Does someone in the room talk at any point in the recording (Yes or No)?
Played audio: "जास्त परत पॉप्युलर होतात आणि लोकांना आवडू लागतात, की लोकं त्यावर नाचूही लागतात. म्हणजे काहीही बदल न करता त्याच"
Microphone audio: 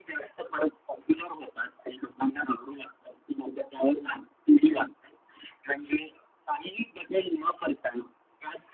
No